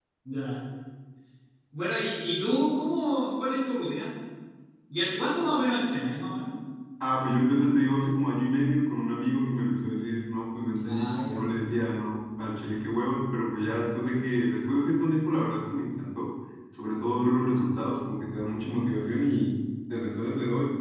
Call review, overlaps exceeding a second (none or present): none